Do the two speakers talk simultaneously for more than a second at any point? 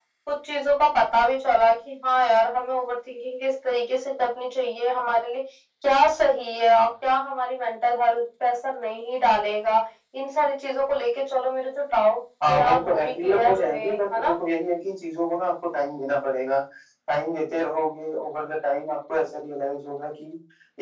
Yes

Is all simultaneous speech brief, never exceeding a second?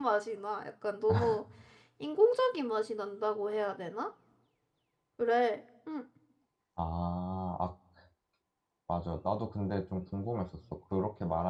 Yes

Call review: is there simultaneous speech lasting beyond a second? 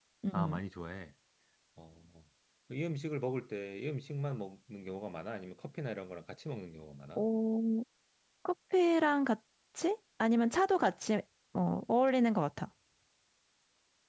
No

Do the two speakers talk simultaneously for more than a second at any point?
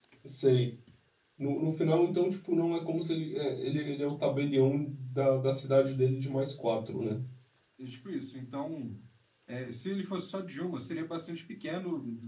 No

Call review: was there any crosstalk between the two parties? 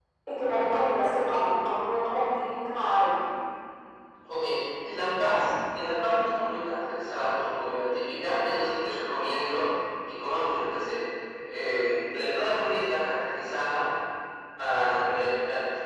No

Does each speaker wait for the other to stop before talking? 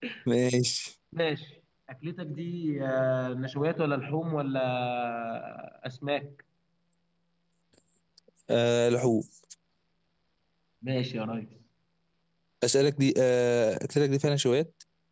Yes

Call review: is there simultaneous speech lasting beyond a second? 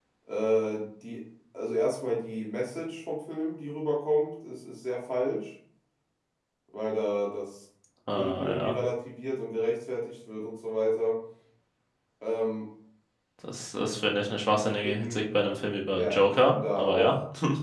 Yes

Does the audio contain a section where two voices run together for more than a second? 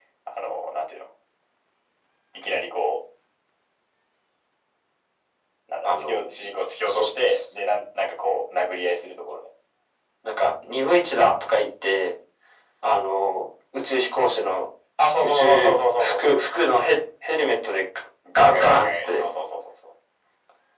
Yes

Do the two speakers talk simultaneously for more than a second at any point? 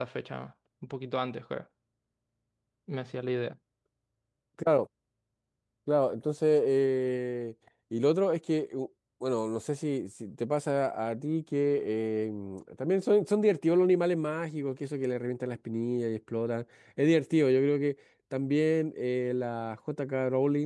No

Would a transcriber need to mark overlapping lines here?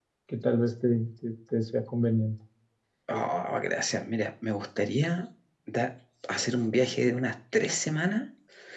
No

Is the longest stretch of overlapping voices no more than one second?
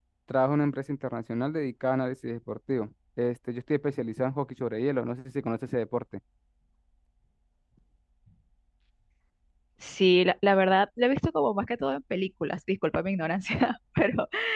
Yes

